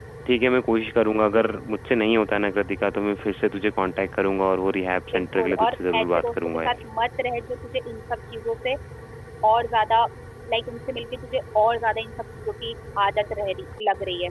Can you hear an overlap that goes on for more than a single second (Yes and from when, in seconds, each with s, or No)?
Yes, from 5.1 s